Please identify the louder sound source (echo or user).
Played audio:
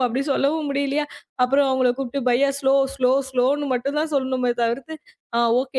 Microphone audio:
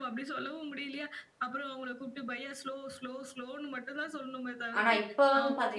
user